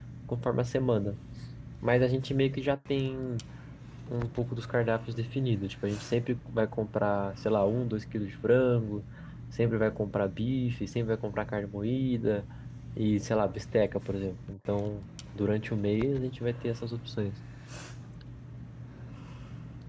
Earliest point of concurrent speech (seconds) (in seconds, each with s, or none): none